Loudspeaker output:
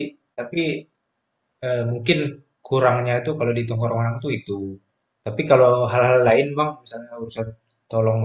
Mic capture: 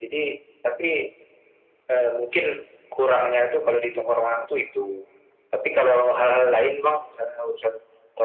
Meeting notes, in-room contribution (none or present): none